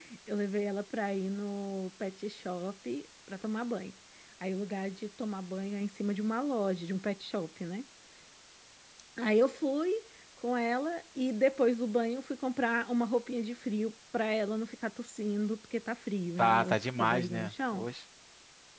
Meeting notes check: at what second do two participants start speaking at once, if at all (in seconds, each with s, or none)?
16.4 s